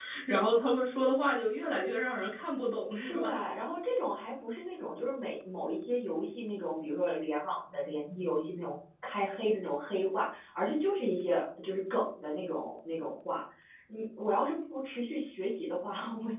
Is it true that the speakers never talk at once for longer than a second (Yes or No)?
Yes